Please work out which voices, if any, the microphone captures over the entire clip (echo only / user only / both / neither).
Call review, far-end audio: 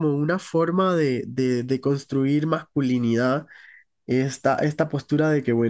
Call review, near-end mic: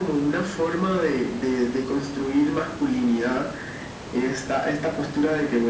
echo only